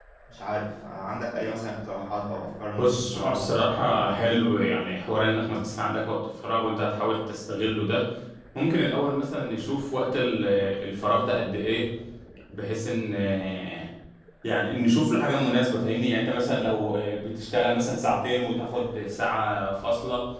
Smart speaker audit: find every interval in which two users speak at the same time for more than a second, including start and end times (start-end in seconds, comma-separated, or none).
2.8-4.5